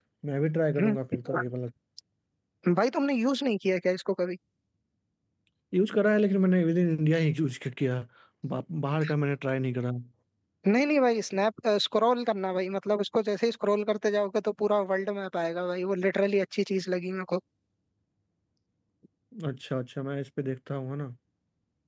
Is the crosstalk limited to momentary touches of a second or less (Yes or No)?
Yes